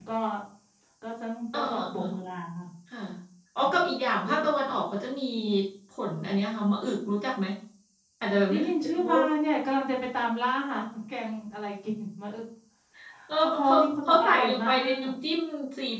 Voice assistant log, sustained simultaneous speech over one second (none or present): present